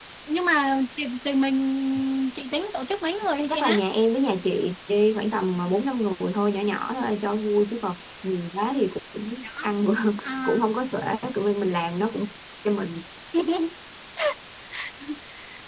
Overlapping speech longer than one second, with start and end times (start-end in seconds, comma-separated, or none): none